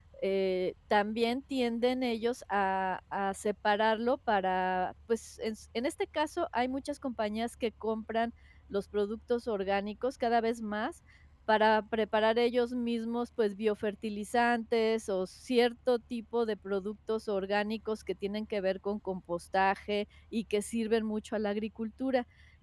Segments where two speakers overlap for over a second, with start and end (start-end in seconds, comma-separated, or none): none